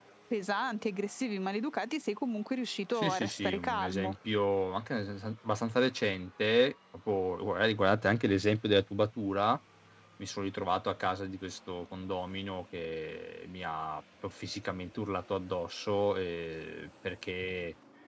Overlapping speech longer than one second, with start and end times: 2.9-4.2

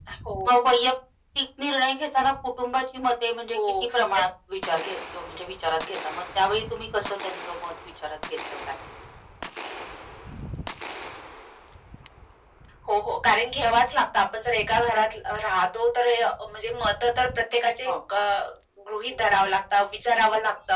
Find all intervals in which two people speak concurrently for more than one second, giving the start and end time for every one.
none

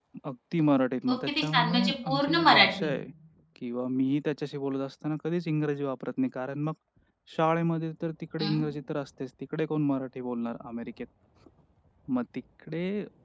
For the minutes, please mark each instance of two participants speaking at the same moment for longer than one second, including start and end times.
1.1-2.9

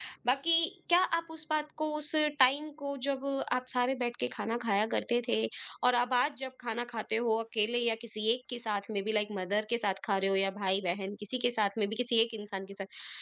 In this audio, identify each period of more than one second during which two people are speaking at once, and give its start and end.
none

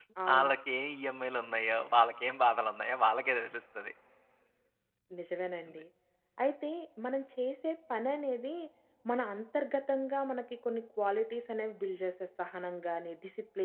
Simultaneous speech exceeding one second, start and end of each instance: none

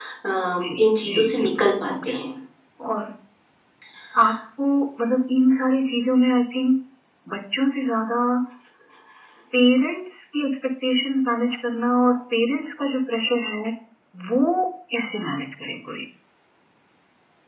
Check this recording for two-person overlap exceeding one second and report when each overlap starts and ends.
0.6-2.1

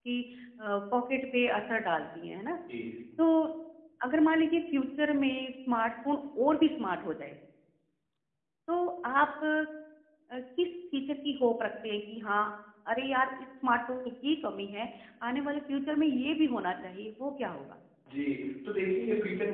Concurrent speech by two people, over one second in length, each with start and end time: none

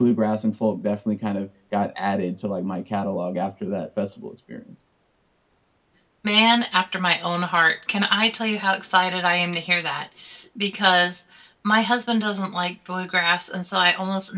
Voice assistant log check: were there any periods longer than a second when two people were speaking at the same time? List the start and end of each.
none

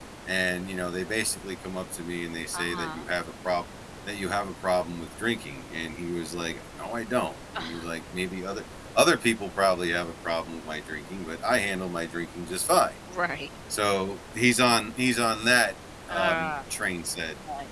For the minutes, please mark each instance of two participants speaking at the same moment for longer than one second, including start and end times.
none

